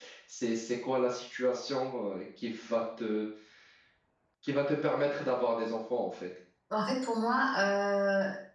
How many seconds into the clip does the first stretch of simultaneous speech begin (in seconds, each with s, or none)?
none